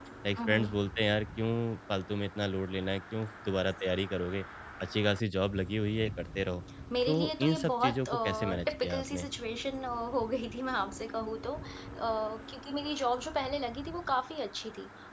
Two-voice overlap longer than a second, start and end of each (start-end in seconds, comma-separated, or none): 7.1-9.3